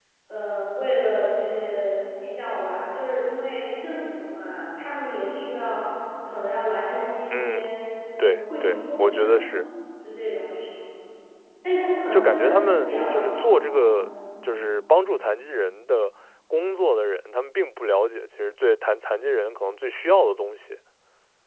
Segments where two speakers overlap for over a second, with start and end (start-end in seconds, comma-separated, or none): 8.2-9.4, 12.1-13.4